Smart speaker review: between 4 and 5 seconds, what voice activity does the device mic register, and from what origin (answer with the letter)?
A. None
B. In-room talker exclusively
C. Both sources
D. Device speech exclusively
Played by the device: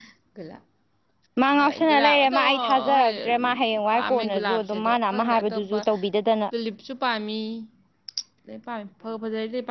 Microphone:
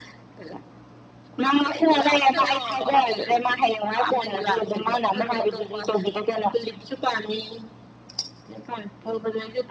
D